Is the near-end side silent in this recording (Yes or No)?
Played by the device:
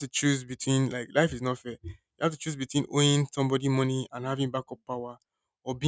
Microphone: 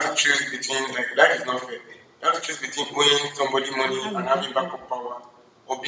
No